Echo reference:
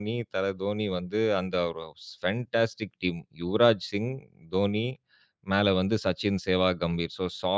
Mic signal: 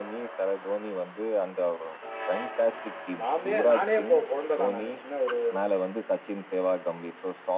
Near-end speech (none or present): present